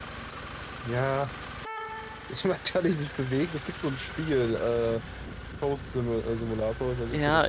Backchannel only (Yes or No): No